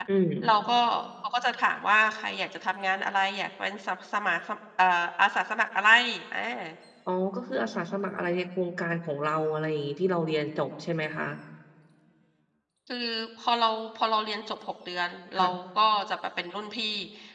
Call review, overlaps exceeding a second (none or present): none